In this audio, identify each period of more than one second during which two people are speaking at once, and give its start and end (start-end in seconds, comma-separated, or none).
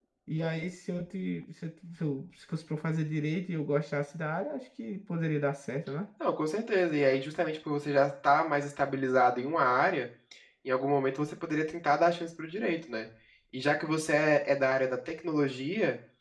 none